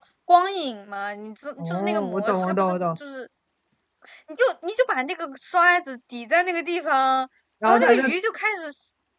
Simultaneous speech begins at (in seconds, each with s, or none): 1.6 s